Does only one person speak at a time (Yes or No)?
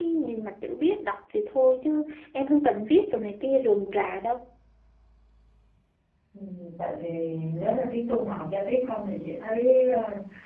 Yes